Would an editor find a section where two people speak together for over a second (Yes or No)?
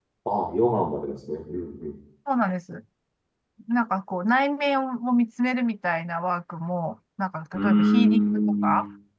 Yes